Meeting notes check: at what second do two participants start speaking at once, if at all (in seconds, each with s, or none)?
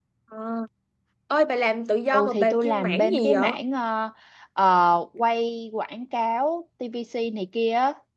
2.1 s